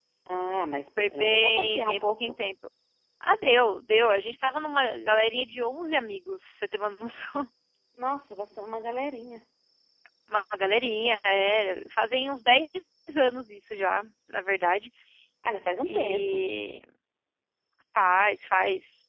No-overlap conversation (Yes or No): No